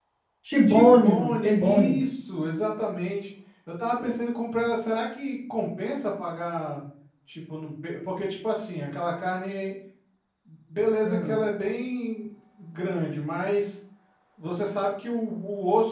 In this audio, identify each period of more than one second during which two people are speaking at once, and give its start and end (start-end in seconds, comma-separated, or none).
0.7-2.0